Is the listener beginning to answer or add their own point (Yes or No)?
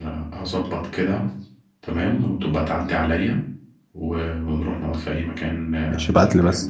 Yes